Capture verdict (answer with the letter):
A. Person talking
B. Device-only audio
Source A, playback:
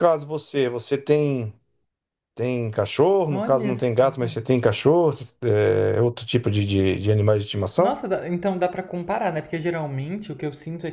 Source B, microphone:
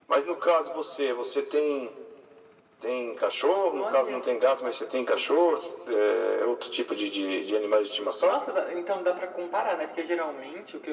B